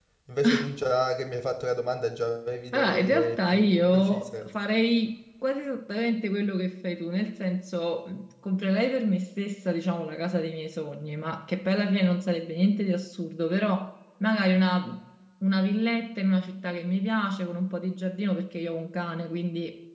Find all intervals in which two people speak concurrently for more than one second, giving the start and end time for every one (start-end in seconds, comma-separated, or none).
2.7-4.3